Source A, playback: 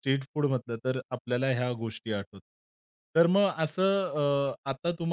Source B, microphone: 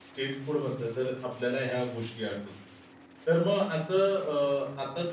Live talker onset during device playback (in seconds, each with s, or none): none